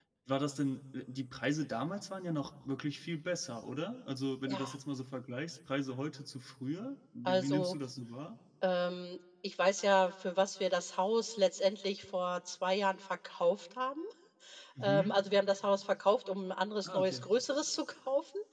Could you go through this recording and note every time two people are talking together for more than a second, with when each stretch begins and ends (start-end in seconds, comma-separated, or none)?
none